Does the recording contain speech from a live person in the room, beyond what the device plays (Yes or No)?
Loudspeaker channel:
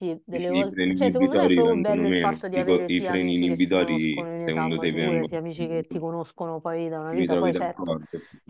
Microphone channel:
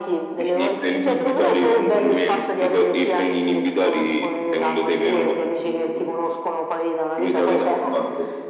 No